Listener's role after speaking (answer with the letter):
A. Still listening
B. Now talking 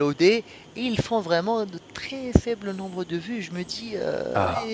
A